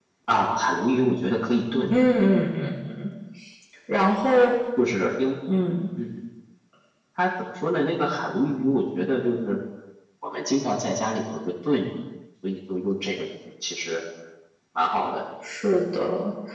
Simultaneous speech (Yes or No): No